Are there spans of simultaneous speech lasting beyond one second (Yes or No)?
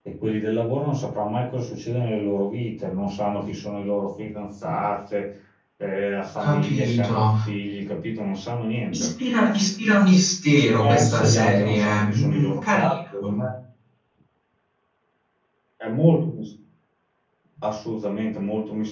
Yes